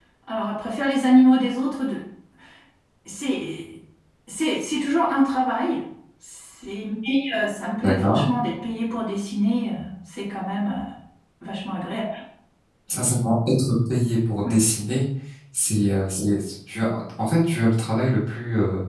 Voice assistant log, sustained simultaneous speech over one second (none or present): none